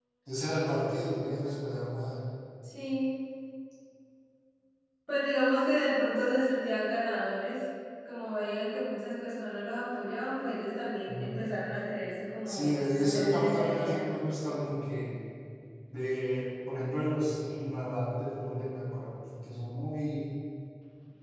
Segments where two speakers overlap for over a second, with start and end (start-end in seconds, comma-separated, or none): 12.4-14.0